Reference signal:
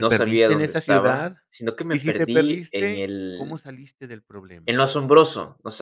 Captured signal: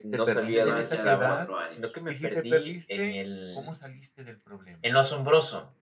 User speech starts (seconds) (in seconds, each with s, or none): 0.4 s